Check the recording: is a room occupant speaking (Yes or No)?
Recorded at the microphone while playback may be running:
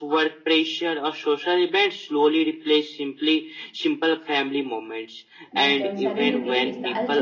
Yes